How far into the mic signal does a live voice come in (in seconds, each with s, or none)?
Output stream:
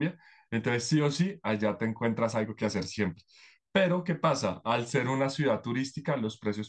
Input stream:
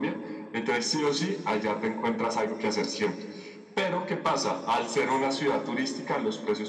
none